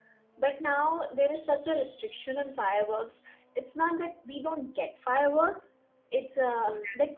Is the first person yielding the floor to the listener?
No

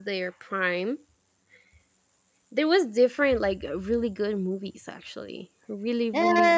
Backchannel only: No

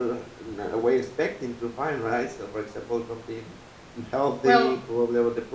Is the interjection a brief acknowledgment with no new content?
Yes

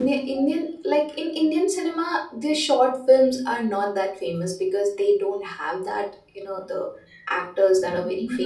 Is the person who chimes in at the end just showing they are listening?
No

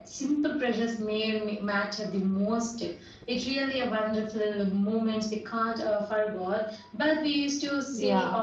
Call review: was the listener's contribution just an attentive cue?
Yes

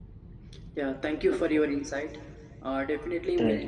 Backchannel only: Yes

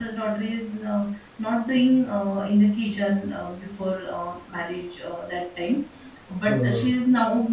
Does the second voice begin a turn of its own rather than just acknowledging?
No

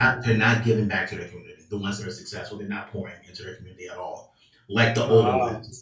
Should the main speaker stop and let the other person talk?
No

